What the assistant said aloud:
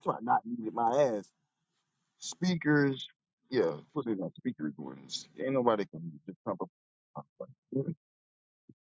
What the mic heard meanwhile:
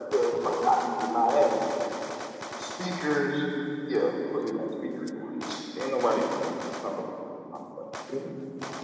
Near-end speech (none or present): none